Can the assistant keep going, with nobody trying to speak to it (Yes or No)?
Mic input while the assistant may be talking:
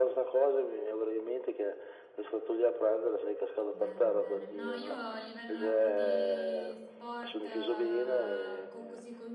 No